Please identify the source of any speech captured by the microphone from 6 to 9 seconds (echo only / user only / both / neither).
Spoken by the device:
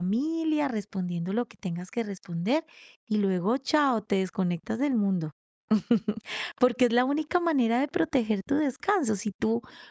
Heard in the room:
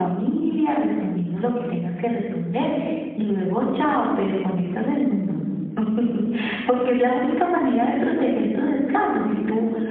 echo only